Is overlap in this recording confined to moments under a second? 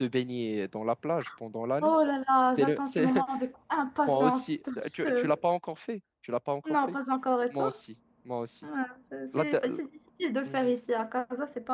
No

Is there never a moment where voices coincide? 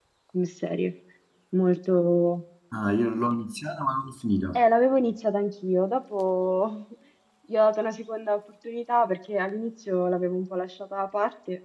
Yes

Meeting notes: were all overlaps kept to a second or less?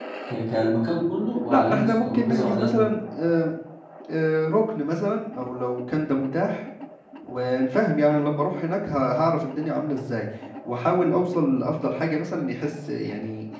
No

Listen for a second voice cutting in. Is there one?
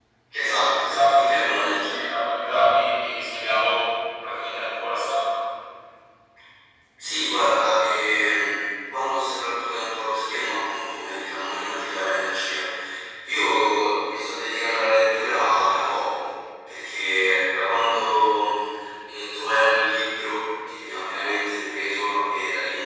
Yes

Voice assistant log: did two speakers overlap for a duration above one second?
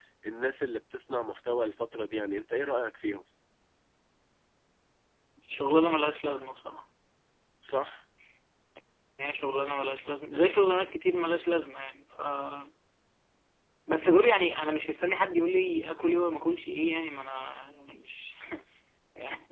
No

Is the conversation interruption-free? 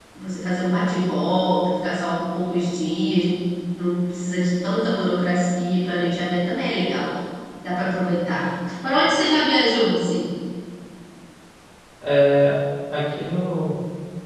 Yes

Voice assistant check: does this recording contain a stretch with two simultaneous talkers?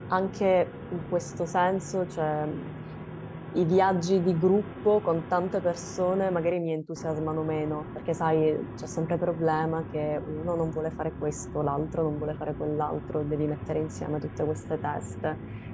No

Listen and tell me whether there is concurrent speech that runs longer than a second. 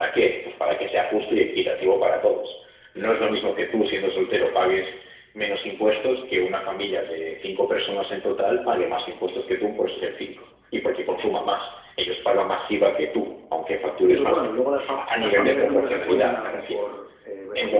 Yes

